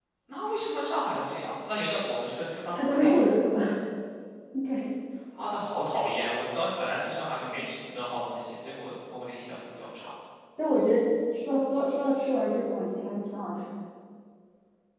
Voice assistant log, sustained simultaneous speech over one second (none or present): none